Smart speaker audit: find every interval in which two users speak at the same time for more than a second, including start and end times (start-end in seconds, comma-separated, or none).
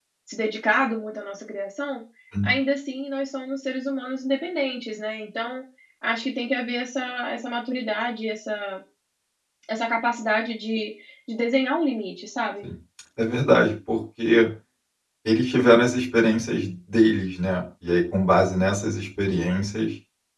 none